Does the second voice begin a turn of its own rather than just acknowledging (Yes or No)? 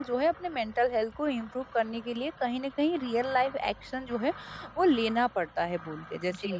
Yes